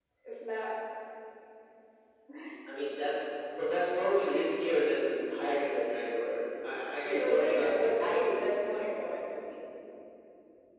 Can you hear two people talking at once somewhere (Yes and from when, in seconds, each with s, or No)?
Yes, from 7.0 s